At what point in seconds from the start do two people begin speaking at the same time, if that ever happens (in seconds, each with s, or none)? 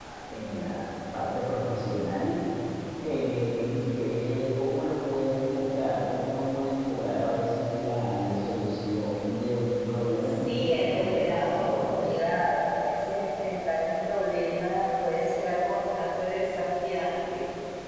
10.2 s